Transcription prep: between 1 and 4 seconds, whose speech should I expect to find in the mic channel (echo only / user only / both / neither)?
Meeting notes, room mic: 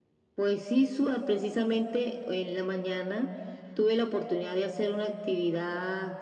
echo only